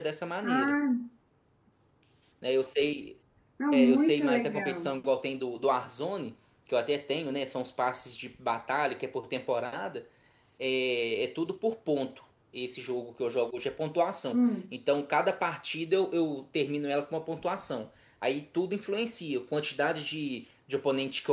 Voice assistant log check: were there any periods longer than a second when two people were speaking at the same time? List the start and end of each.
3.7-4.9

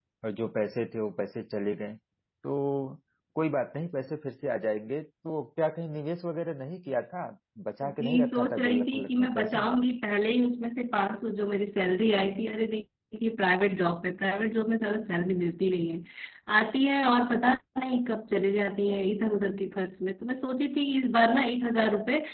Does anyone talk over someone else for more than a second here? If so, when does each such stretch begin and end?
7.8-9.7

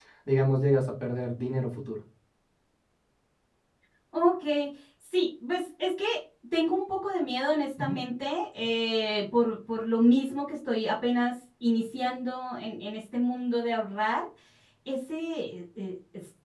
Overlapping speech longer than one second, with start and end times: none

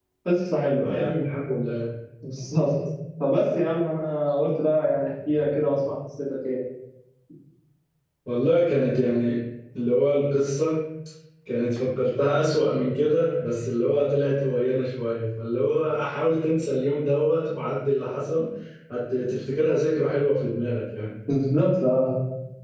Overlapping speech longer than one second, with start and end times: none

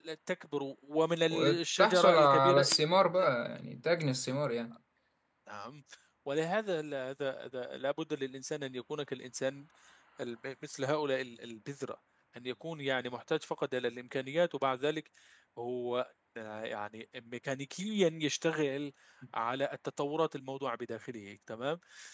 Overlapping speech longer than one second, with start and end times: 1.3-2.6

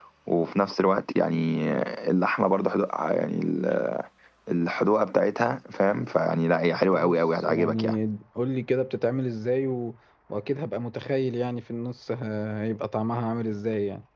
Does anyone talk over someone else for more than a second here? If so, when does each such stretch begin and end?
6.7-7.9

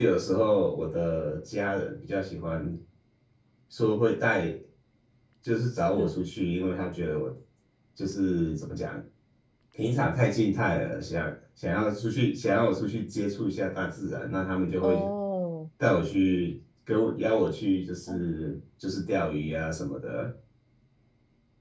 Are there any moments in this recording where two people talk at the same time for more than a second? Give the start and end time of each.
none

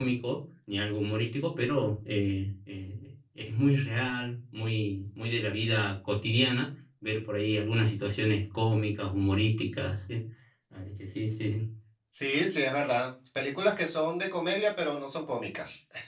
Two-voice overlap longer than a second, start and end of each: none

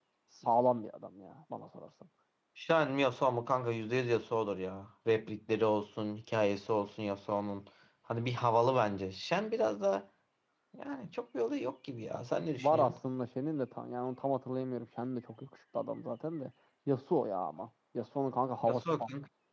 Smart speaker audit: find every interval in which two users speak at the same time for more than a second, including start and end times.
none

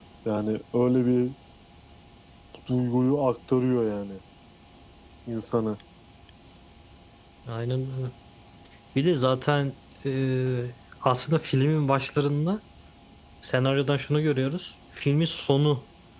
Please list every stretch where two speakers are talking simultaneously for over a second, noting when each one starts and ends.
none

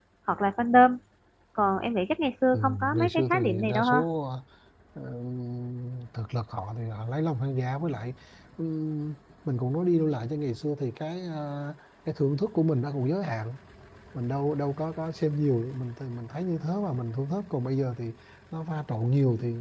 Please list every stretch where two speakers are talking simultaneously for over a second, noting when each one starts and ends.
2.5-4.0

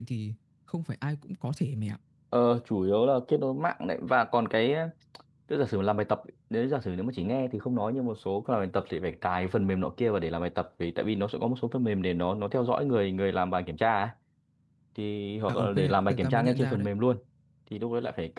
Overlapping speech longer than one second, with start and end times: 15.5-16.9

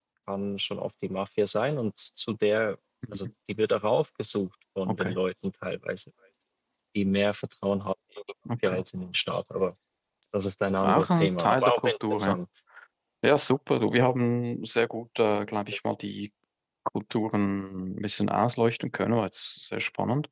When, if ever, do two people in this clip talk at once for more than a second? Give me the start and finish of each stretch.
10.8-12.4

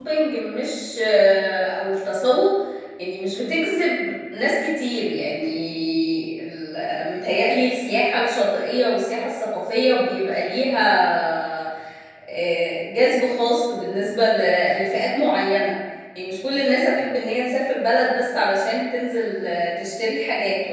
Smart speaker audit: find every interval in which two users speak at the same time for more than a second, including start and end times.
none

